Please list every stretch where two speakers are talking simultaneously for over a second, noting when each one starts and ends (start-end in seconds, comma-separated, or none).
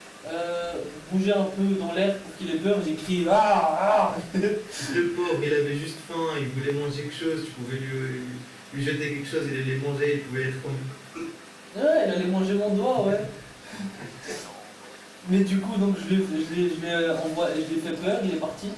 none